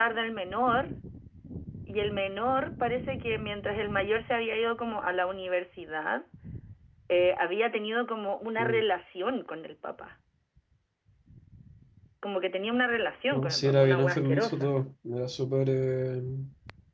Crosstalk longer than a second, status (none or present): present